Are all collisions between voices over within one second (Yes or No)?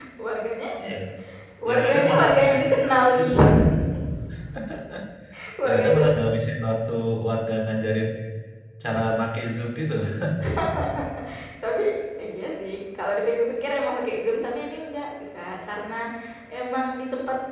No